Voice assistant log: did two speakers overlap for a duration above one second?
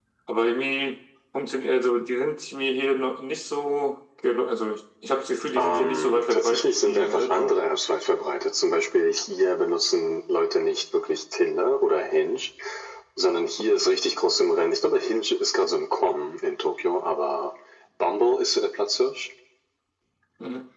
Yes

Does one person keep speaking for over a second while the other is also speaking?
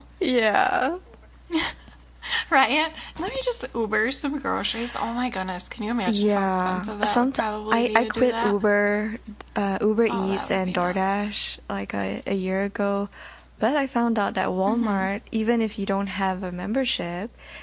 Yes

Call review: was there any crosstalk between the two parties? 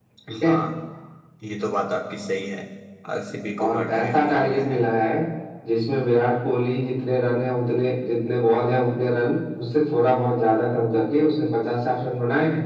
Yes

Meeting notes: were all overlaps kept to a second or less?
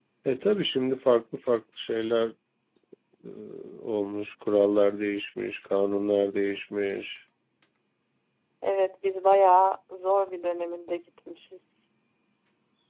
Yes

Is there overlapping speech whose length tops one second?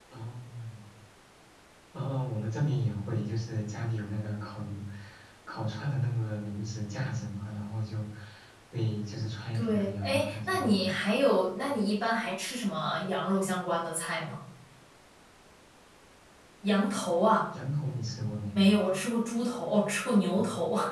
Yes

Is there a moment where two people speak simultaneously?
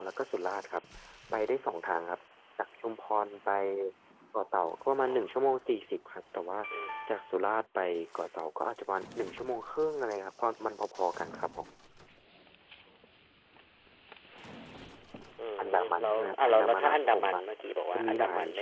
Yes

